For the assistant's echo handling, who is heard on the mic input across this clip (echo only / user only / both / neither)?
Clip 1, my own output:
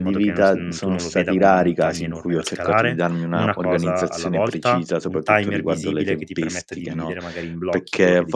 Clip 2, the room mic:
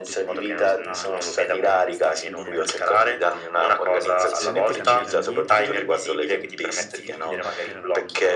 both